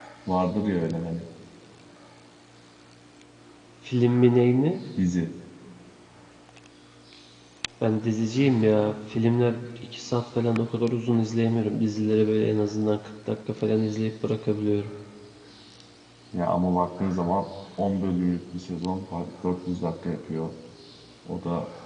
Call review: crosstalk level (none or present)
none